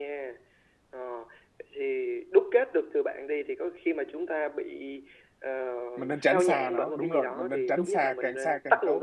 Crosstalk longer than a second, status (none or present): present